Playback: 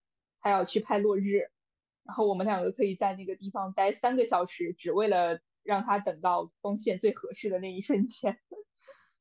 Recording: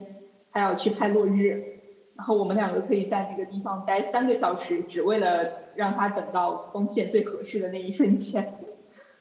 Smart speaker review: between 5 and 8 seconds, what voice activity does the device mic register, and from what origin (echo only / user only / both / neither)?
echo only